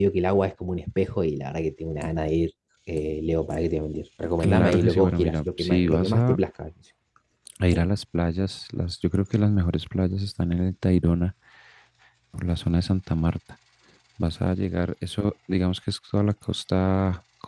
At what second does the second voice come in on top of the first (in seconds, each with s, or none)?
4.4 s